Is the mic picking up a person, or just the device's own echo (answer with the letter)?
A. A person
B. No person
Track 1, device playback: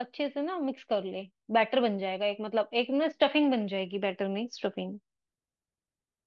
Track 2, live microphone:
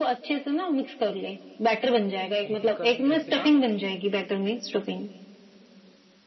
A